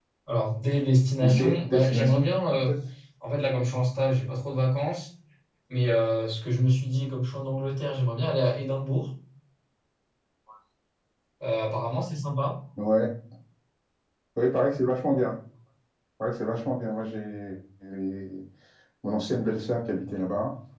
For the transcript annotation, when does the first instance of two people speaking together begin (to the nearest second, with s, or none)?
1 s